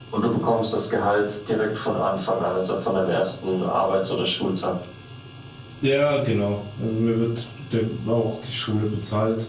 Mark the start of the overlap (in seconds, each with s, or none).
none